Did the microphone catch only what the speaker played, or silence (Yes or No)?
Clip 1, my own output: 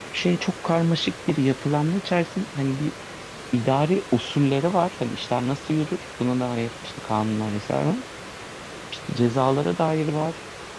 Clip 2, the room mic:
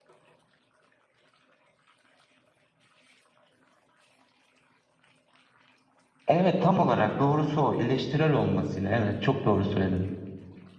No